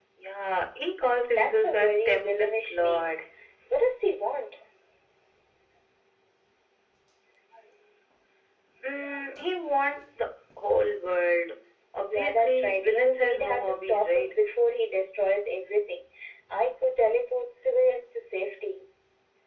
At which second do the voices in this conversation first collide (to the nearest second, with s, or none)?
1 s